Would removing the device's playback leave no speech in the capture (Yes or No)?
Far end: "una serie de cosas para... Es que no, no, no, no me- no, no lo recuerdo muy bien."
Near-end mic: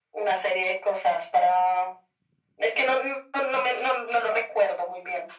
Yes